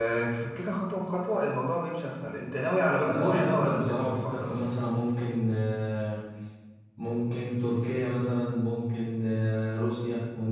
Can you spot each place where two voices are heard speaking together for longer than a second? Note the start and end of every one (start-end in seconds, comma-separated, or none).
3.0-4.6